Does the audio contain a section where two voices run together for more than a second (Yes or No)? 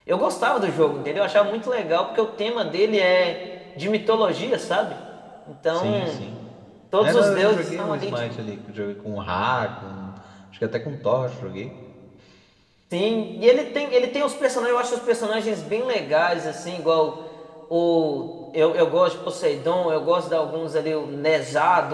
Yes